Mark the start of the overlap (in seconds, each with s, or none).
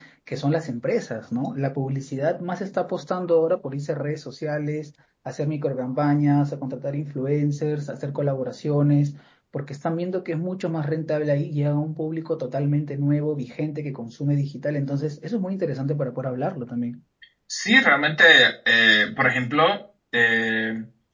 none